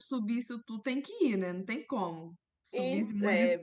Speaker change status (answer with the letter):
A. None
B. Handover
B